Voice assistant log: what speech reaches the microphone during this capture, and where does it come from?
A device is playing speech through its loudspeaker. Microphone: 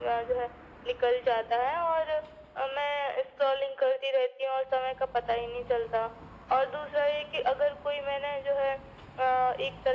echo only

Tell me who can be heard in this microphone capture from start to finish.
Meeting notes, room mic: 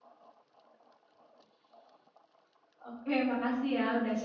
user only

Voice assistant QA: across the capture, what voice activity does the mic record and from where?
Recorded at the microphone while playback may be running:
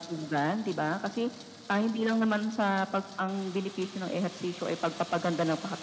echo only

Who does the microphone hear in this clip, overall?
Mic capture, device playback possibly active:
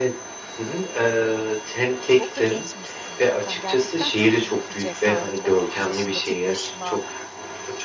both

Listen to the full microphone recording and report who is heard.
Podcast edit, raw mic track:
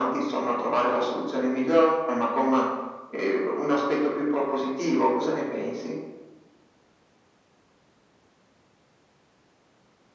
echo only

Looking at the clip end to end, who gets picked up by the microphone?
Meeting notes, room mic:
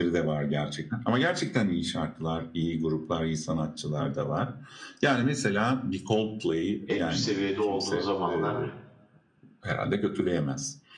both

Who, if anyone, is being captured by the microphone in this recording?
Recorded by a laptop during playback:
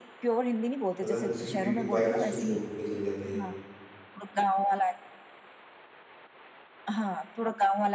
both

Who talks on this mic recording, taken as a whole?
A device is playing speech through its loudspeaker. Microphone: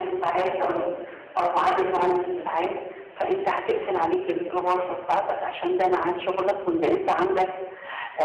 both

